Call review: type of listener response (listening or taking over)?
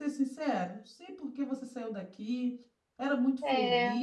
listening